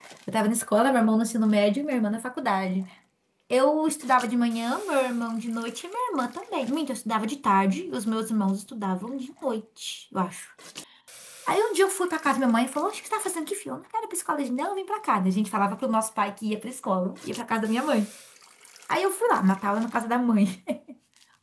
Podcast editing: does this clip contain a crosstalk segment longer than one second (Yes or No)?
No